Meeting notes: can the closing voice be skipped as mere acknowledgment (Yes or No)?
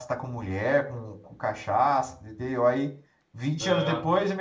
Yes